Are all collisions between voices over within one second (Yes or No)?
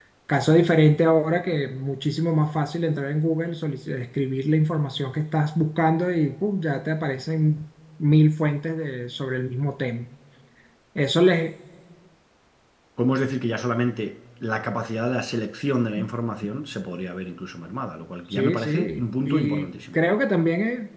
No